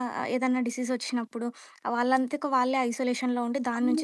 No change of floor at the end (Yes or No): No